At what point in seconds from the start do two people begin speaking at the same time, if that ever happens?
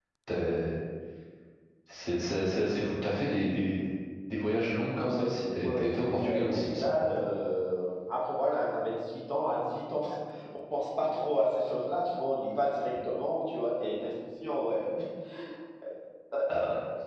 5.0 s

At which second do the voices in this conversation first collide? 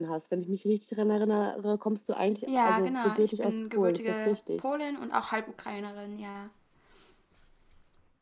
2.5 s

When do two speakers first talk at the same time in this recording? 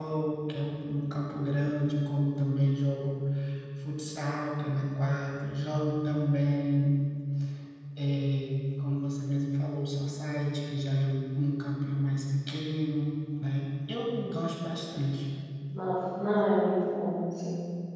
none

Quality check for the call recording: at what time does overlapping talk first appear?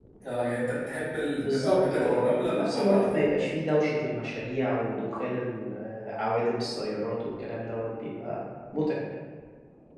1.4 s

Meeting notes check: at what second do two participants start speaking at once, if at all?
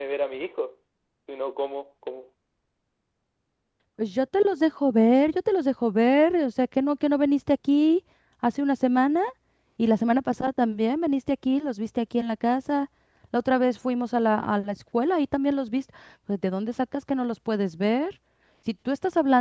none

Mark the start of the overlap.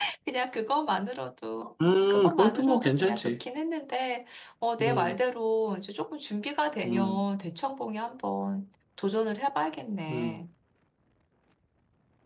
1.9 s

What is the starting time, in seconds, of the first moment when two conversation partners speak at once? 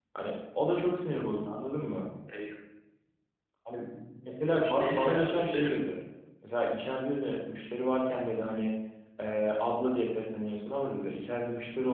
4.5 s

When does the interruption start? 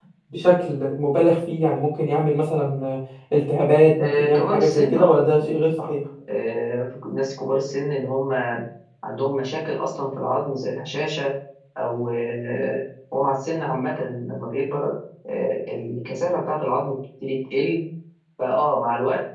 4.0 s

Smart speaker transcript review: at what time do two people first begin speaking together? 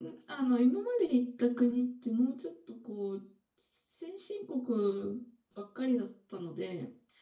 none

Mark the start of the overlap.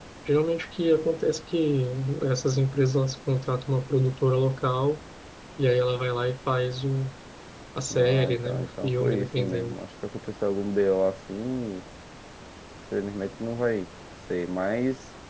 7.9 s

